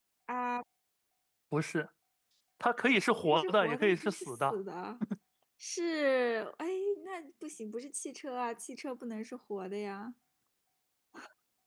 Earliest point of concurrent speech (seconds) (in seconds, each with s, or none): 3.2 s